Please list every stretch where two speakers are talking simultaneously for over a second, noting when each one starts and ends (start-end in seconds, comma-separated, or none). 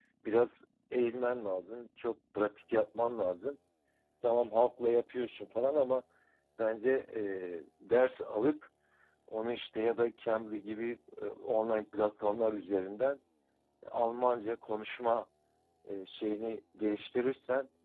none